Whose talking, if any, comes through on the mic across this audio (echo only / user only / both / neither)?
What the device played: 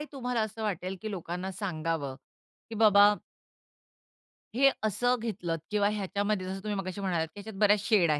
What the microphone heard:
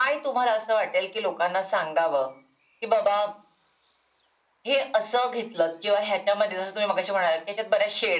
echo only